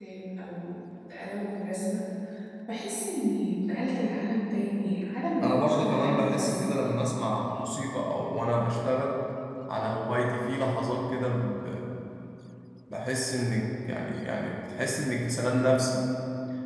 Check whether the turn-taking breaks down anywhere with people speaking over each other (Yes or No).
Yes